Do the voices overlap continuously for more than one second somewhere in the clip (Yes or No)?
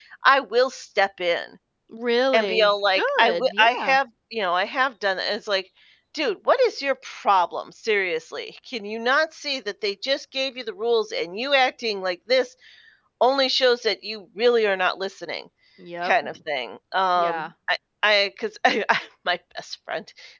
Yes